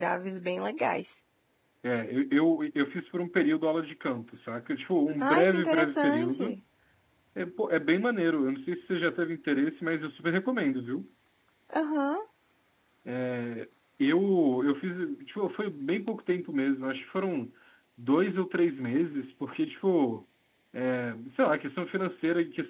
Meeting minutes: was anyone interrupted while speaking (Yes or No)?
Yes